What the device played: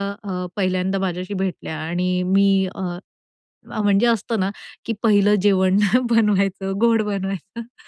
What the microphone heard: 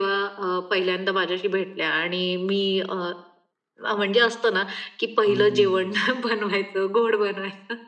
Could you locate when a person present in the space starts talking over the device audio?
5.3 s

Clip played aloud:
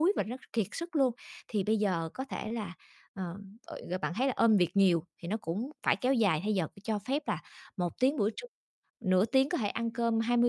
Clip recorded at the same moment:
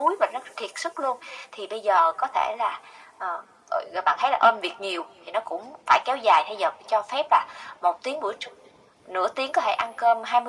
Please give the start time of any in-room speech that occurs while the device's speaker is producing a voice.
none

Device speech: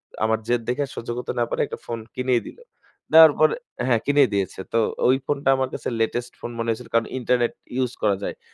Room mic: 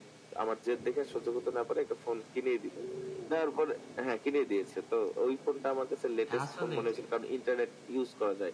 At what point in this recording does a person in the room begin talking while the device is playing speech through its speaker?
6.3 s

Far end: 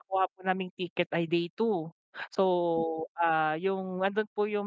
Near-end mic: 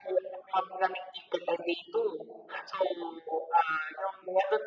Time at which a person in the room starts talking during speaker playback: none

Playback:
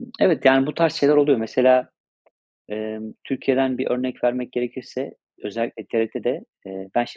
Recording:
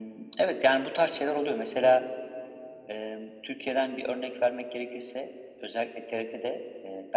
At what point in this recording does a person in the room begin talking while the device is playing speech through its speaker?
none

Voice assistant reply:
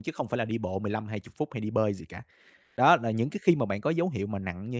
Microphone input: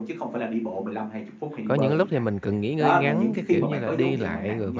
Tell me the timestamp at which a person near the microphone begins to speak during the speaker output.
1.6 s

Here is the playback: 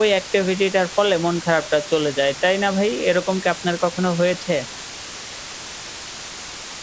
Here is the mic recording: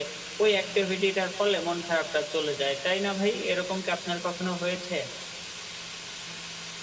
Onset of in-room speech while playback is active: none

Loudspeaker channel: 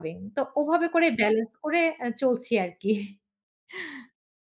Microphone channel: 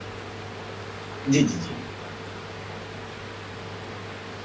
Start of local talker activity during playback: 1.3 s

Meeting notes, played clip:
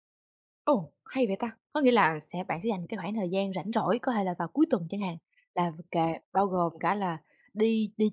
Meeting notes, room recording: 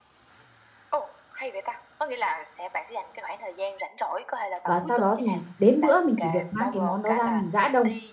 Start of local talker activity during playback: 4.6 s

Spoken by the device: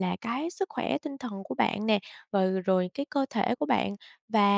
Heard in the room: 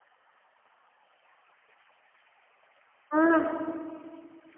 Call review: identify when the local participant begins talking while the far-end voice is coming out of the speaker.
3.1 s

